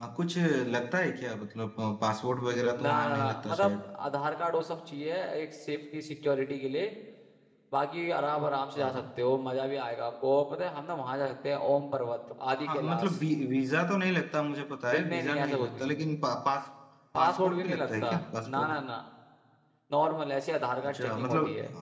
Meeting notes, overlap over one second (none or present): present